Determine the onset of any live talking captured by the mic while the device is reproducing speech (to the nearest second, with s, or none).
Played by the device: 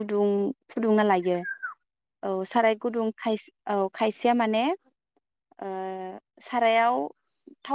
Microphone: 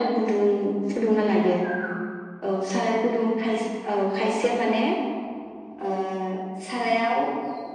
none